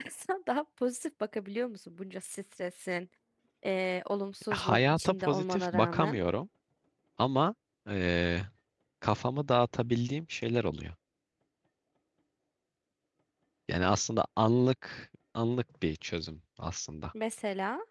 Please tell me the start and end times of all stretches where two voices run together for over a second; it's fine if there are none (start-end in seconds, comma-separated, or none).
4.5-6.2